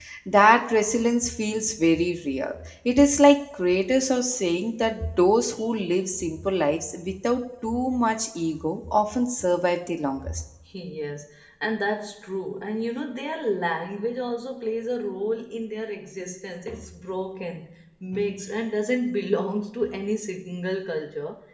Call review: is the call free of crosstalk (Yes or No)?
Yes